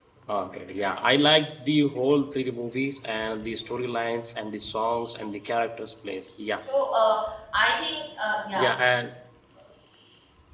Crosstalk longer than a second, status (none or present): none